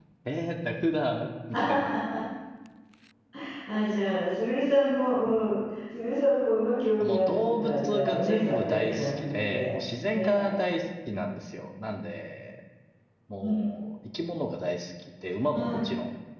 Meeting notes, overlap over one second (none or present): present